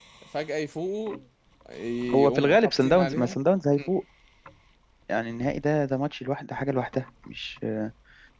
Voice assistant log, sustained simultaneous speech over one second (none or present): present